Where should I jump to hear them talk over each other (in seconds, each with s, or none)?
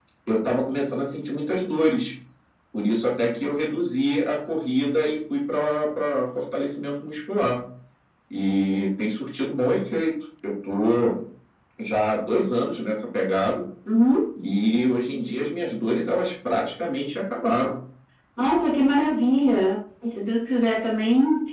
none